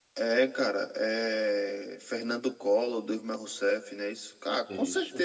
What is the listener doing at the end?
listening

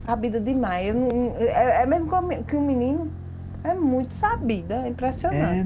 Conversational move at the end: taking over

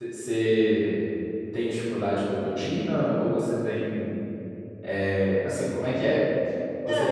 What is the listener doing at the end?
taking over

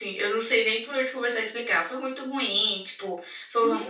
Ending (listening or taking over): listening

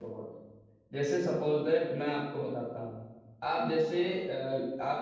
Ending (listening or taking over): listening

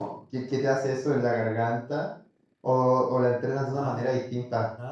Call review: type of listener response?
taking over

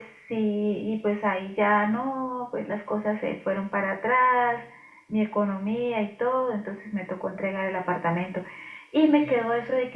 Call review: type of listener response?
listening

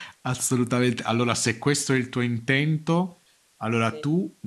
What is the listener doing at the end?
listening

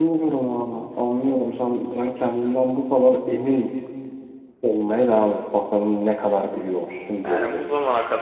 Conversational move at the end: taking over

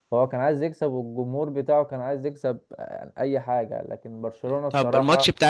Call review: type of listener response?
taking over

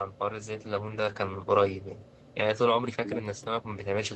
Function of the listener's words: listening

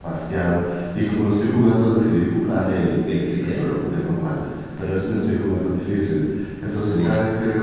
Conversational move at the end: listening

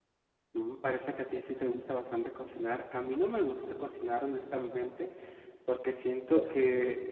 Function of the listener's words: listening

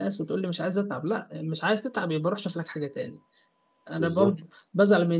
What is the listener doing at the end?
listening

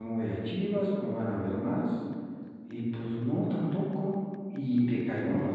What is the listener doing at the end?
listening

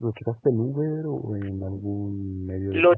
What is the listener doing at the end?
taking over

